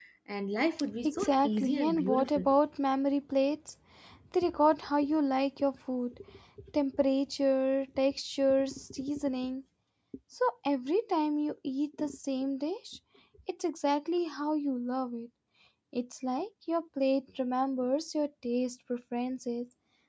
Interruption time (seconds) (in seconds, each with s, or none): 1.0 s